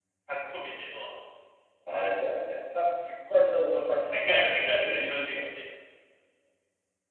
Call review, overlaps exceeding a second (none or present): present